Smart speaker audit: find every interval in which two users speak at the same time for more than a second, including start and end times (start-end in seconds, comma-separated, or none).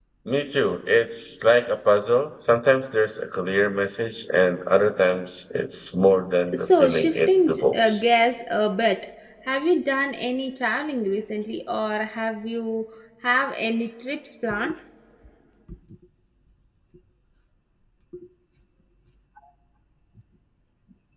6.6-8.0